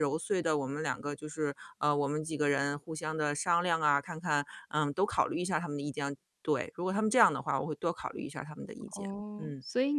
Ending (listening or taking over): taking over